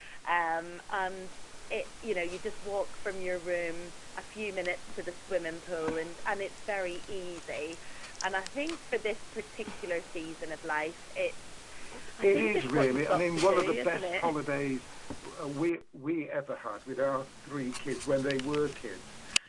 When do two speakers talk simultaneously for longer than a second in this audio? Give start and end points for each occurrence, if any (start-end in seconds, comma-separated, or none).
12.2-14.3